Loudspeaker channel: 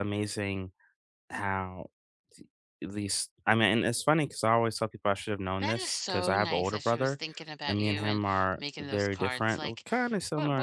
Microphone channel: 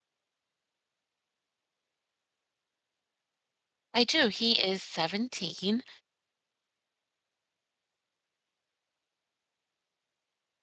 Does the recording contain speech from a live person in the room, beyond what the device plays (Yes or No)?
Yes